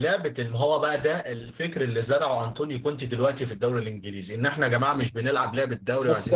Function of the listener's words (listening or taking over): taking over